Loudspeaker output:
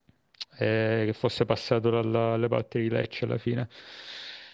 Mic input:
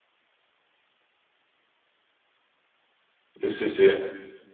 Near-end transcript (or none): Sì, sì, sì.